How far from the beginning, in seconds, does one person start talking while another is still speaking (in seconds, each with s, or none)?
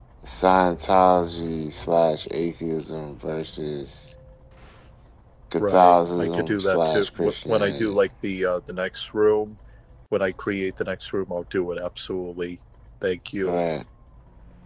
5.6 s